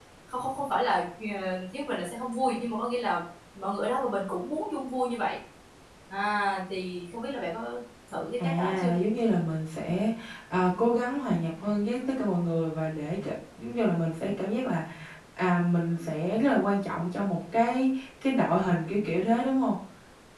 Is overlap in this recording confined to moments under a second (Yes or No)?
Yes